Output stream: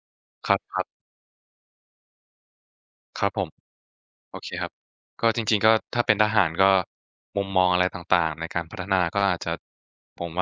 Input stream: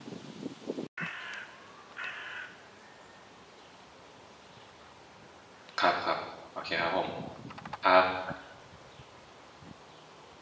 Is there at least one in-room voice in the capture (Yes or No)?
Yes